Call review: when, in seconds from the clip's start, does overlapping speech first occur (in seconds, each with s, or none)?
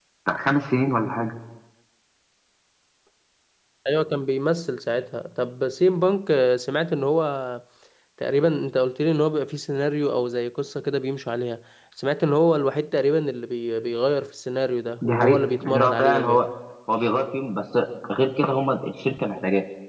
15.0 s